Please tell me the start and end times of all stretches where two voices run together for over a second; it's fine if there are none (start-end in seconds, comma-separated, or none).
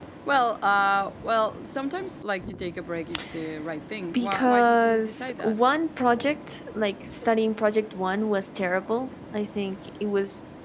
4.1-5.6